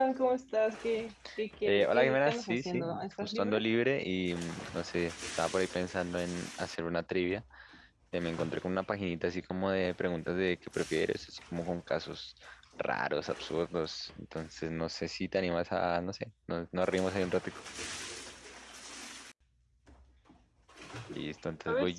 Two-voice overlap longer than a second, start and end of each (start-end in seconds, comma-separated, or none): 1.6-3.6